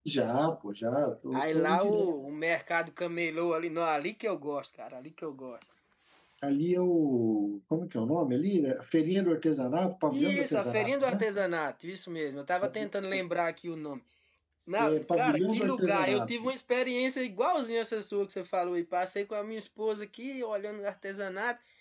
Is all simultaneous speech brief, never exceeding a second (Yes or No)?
No